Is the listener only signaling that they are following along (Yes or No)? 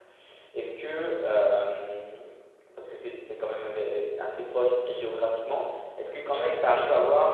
Yes